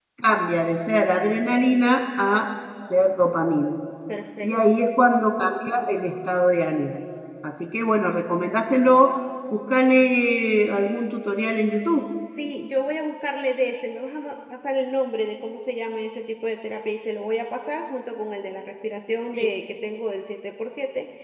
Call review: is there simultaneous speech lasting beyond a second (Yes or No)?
No